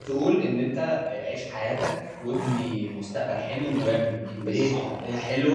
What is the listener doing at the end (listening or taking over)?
listening